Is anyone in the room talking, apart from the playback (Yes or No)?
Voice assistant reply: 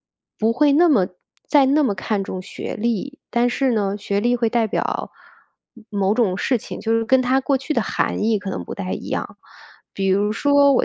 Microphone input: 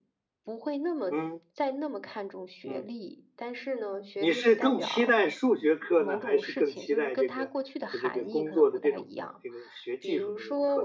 Yes